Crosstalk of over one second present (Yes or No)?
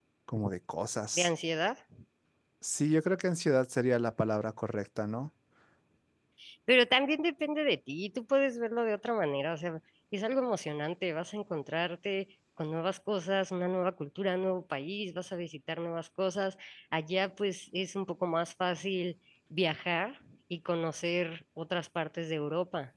No